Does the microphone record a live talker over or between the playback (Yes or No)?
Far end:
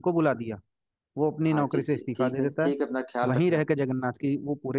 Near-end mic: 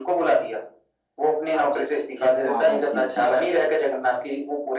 Yes